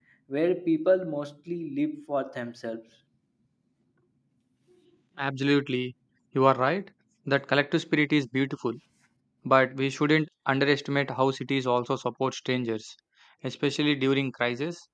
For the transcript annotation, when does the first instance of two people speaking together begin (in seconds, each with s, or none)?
none